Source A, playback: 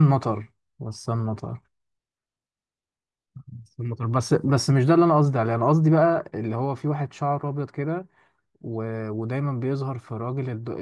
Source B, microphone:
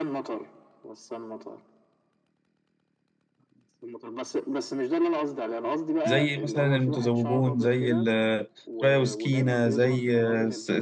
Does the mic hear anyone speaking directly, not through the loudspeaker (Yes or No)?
Yes